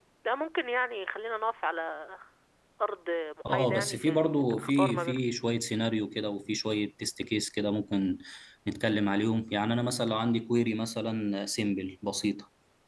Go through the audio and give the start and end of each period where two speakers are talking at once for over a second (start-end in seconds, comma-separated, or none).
3.5-5.2